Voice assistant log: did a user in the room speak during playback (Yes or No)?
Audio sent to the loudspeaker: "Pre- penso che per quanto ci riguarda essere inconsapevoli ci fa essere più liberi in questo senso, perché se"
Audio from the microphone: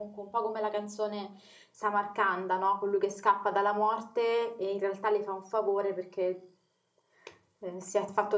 Yes